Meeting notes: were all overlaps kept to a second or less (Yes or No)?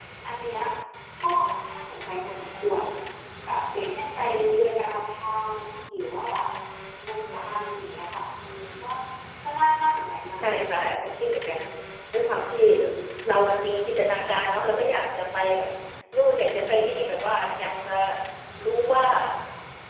Yes